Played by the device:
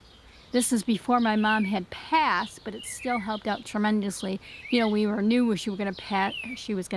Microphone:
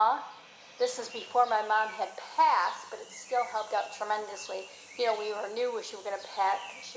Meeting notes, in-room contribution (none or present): none